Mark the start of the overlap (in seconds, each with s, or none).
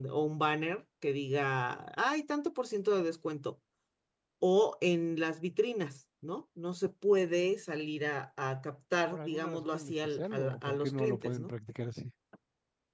9.1 s